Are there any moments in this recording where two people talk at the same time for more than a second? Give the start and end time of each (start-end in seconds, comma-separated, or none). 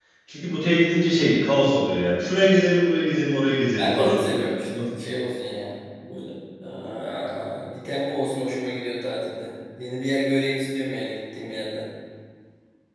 none